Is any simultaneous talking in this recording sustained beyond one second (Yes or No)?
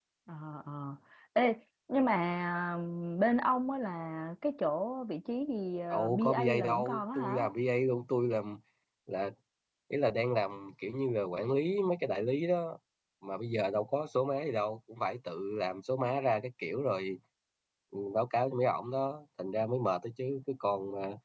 Yes